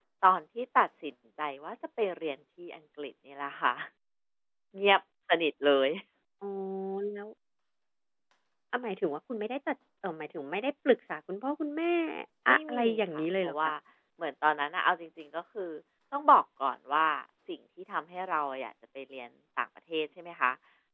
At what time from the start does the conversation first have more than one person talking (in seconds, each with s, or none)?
12.5 s